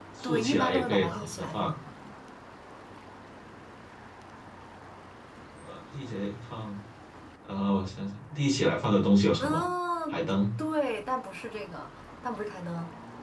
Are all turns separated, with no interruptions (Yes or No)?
No